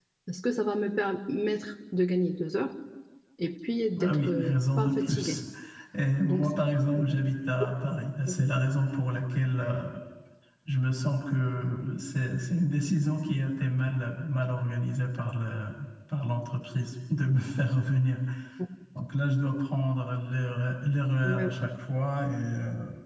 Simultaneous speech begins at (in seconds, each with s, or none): 4.0 s